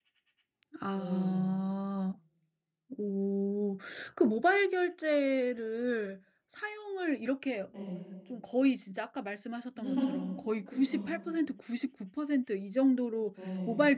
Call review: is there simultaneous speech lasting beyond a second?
No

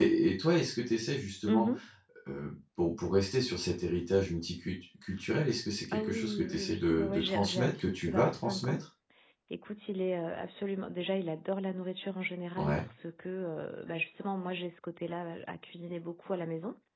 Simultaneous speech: Yes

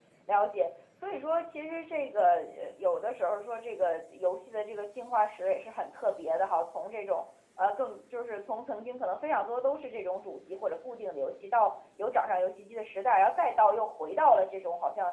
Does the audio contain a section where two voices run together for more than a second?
No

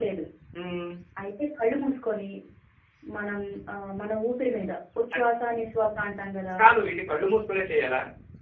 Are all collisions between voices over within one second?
Yes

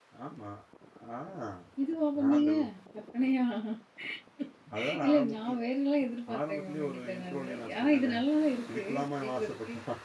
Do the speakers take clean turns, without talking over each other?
No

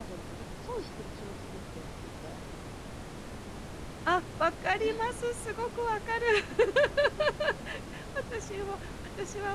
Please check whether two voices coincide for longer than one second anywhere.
No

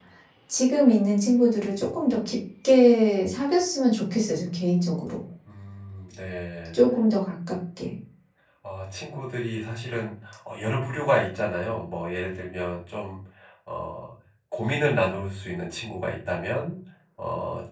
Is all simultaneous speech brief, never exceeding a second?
Yes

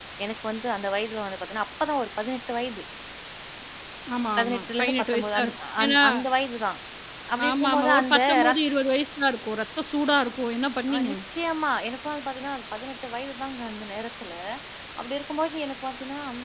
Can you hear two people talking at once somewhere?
Yes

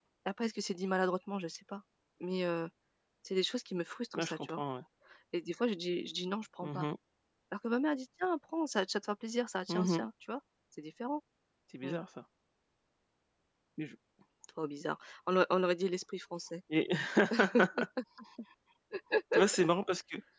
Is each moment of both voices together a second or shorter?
Yes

